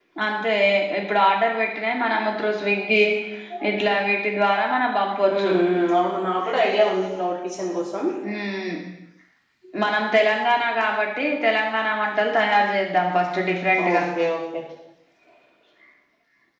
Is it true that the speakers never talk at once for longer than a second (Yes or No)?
Yes